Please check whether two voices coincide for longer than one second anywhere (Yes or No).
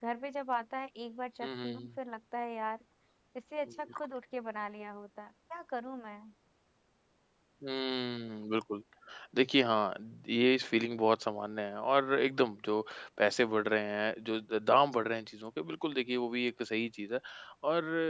No